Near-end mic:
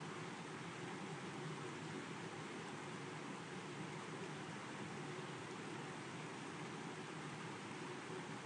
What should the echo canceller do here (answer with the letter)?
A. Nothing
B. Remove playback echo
A